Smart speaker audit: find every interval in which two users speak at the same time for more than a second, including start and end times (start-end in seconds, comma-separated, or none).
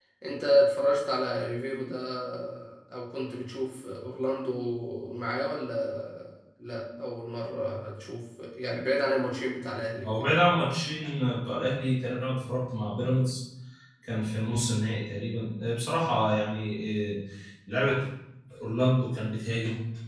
none